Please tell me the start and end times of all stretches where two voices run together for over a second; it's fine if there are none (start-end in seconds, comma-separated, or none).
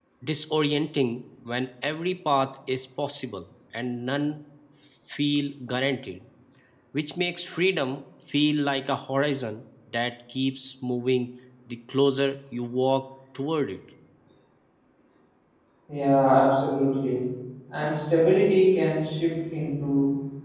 none